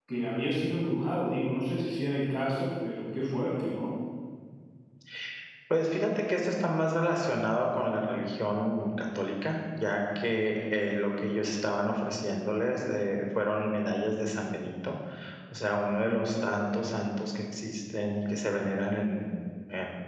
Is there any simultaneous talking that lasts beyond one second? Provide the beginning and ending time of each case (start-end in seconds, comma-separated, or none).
none